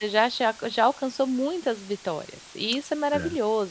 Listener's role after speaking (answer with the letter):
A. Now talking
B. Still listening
B